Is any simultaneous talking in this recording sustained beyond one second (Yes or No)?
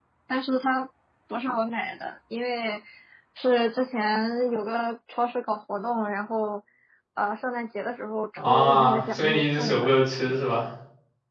Yes